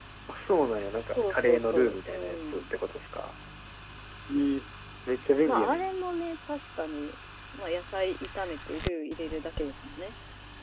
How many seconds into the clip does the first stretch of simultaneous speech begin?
1 s

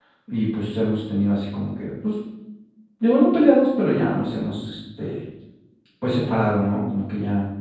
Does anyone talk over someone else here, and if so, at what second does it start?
none

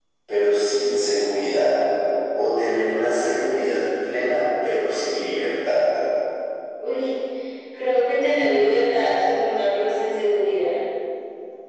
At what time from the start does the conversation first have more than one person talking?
none

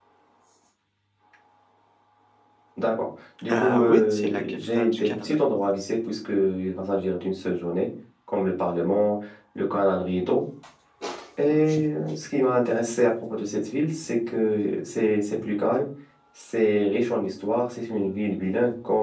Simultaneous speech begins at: 4 s

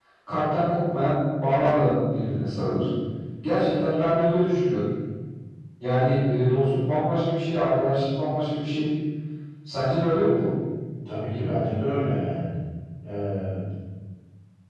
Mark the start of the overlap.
none

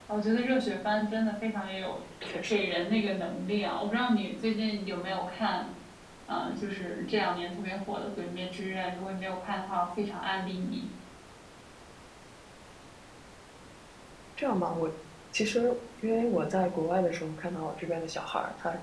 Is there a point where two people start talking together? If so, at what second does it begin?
none

